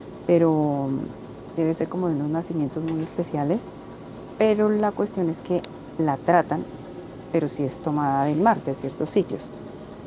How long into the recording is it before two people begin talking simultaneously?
none

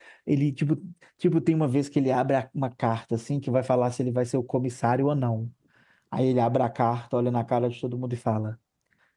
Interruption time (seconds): none

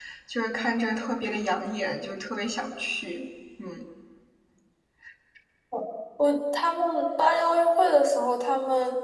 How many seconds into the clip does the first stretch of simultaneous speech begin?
none

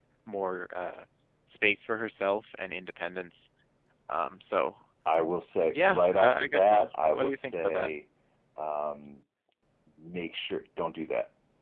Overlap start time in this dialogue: 5.7 s

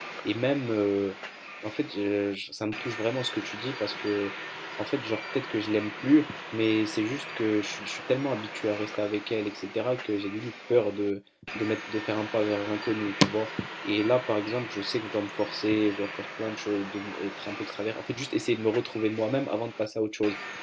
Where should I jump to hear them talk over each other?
none

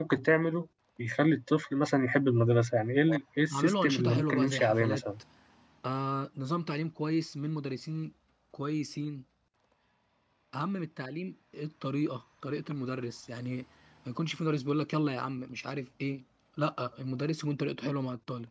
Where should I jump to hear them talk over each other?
3.5 s

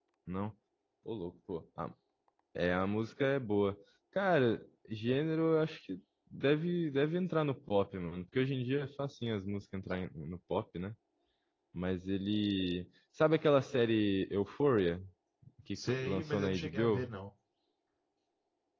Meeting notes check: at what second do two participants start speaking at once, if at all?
15.8 s

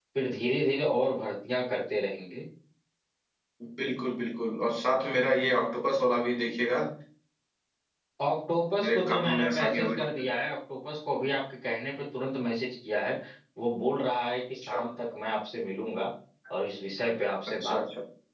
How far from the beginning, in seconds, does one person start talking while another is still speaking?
8.8 s

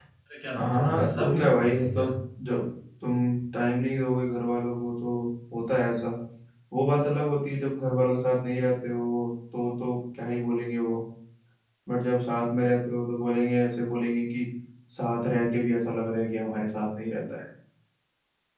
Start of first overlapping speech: 0.6 s

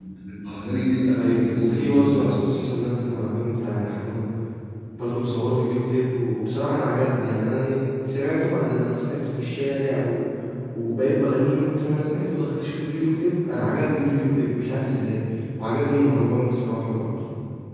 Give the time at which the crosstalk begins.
1.1 s

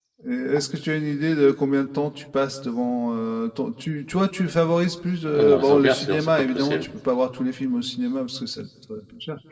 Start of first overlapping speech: 5.3 s

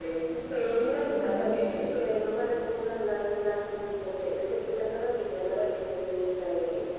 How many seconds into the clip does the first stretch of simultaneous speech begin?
0.5 s

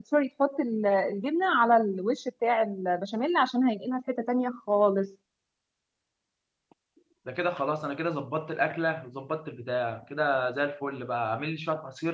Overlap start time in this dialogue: none

